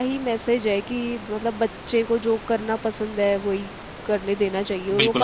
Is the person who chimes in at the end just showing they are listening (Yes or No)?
No